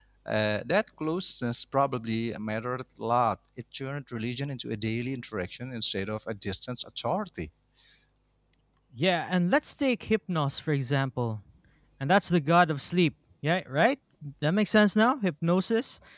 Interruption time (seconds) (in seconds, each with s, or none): none